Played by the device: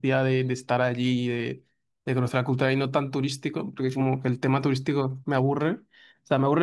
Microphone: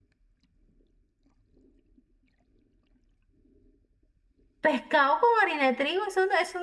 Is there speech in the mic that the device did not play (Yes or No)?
Yes